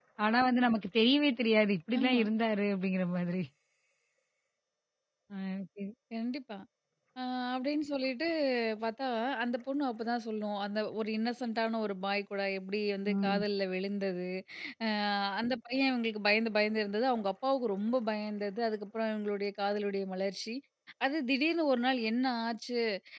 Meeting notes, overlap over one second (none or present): none